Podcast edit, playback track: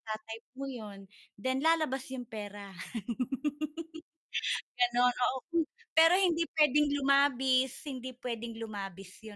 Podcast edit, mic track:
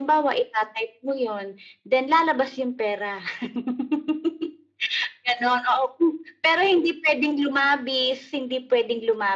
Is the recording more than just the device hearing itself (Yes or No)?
No